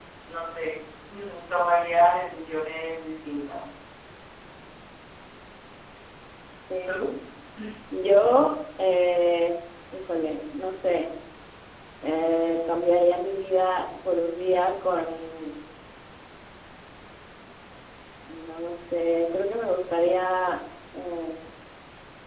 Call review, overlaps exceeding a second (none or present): none